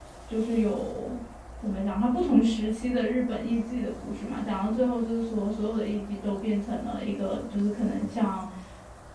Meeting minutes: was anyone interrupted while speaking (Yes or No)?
No